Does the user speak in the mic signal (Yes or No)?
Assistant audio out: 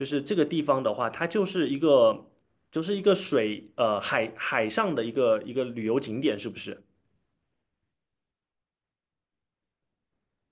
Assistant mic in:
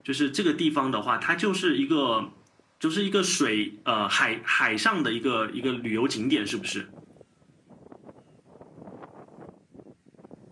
No